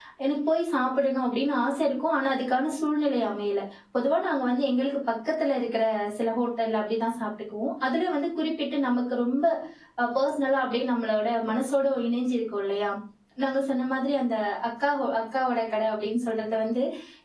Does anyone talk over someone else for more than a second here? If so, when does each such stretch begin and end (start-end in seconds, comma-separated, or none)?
none